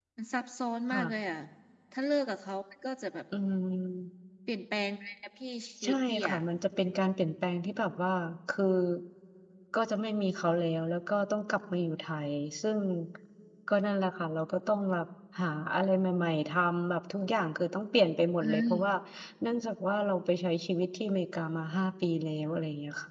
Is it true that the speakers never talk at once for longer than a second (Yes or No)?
Yes